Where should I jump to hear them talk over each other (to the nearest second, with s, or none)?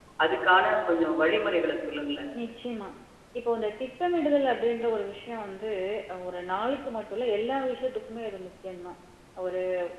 none